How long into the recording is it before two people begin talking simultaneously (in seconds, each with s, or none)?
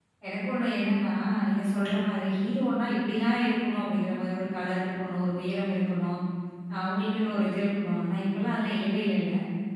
none